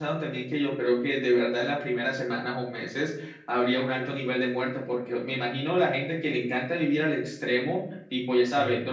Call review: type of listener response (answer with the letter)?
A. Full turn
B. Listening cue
B